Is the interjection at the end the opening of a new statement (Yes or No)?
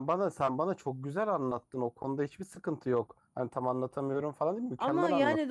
Yes